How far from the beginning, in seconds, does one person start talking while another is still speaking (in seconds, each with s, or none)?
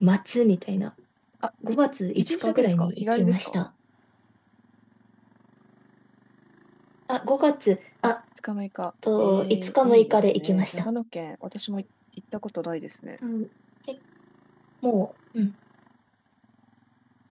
2.2 s